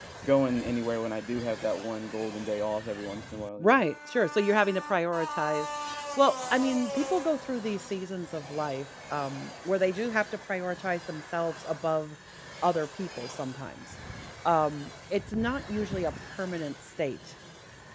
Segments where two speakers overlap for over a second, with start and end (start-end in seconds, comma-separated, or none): none